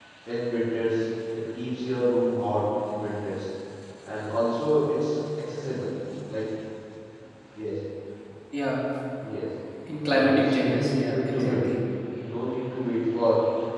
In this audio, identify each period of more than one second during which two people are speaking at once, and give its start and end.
10.1-11.7

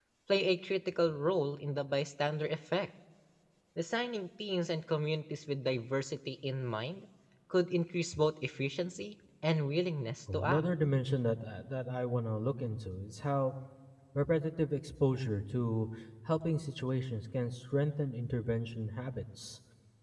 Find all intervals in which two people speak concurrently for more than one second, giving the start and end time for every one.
none

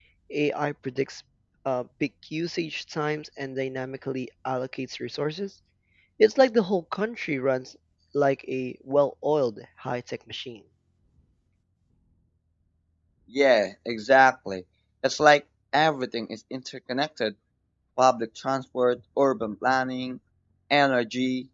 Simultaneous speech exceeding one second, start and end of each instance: none

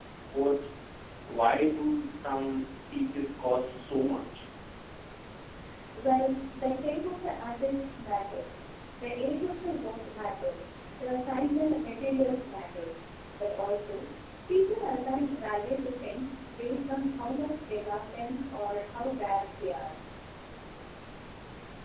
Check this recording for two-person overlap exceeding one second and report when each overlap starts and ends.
none

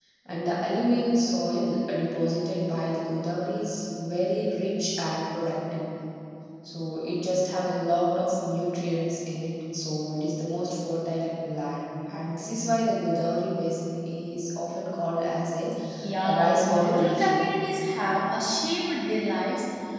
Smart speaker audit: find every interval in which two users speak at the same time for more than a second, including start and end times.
16.2-17.4

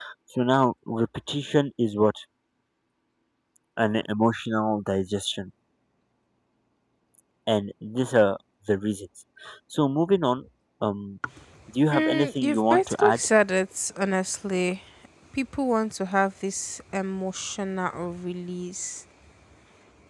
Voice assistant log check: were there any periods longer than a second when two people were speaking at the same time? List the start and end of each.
11.9-13.2

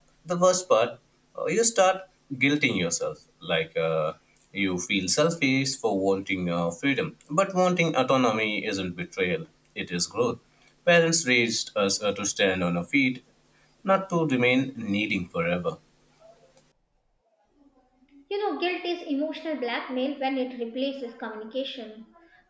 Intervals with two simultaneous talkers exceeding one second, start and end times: none

